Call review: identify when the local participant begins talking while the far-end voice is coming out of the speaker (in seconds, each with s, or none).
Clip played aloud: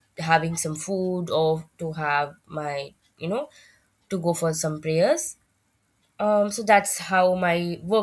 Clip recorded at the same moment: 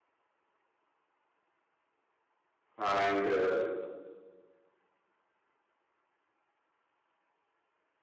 2.8 s